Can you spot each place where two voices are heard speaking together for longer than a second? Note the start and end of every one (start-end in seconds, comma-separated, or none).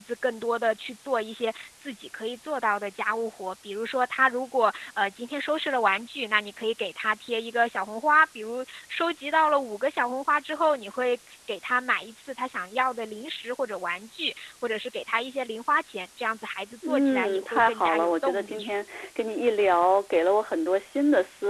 16.9-18.6